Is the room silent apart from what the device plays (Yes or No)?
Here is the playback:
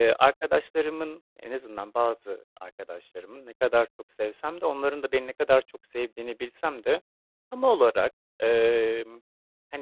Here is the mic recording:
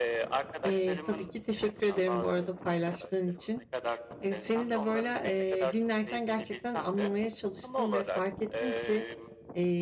No